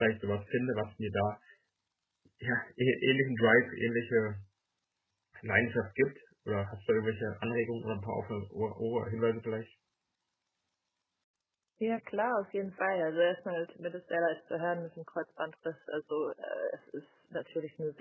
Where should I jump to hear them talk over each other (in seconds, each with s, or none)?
none